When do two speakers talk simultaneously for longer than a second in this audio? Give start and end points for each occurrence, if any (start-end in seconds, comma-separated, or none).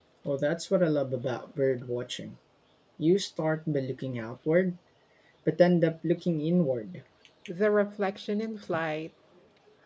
none